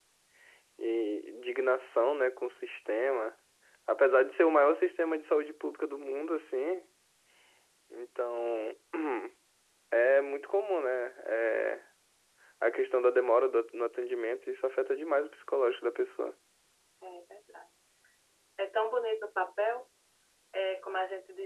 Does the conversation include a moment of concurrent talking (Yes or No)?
No